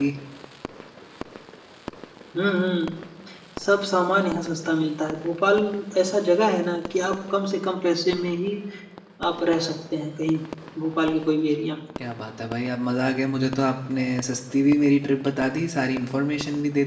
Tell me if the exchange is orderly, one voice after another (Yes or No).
Yes